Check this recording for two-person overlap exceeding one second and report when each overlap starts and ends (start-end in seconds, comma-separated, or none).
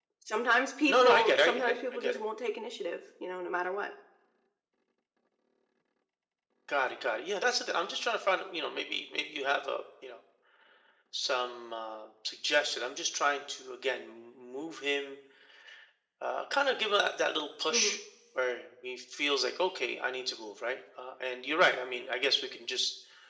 0.9-2.2